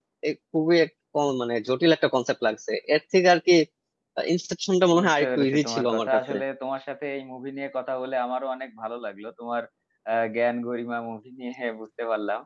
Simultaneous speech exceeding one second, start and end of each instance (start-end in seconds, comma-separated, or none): 5.0-6.3